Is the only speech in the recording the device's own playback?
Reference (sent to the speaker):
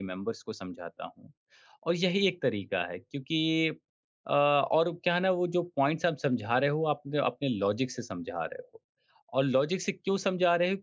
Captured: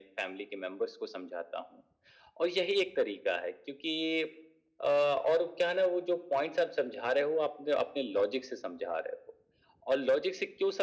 Yes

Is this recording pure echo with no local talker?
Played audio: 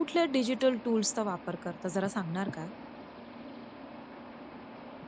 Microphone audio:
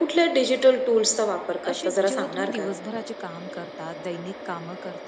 No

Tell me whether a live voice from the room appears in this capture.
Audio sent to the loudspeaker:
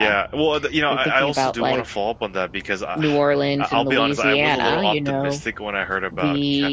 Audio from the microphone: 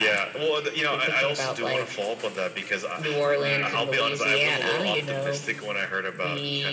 Yes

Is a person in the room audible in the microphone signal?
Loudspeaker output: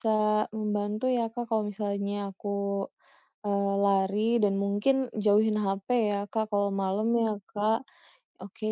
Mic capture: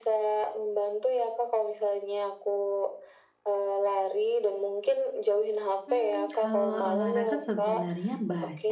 Yes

